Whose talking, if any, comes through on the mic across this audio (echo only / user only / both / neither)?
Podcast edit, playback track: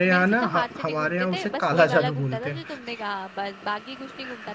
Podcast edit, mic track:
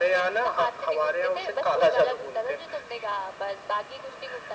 echo only